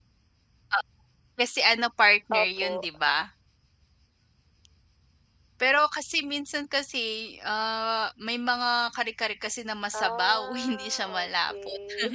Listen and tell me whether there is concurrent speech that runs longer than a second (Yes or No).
Yes